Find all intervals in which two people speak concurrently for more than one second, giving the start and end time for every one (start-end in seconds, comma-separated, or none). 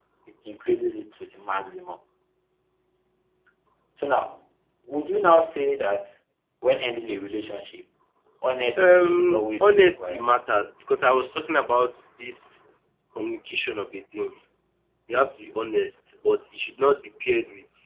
8.8-10.2